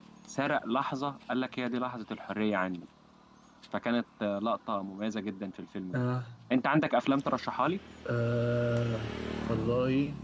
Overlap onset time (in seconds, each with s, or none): none